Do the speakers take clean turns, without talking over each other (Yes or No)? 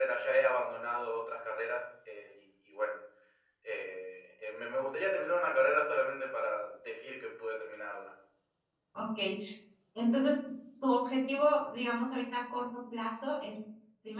Yes